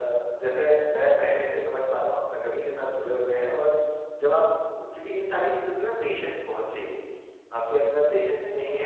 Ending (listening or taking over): listening